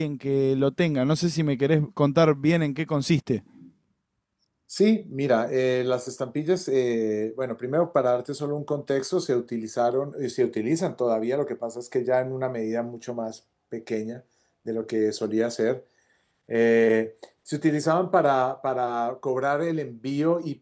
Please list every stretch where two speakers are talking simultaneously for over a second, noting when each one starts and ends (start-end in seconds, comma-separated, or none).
none